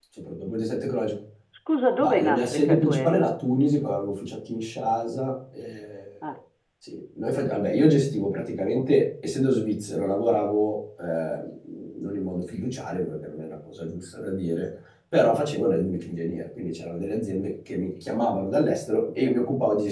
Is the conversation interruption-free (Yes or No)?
No